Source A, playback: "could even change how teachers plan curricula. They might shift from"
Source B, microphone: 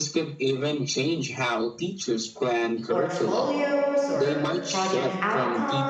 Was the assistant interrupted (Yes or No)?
Yes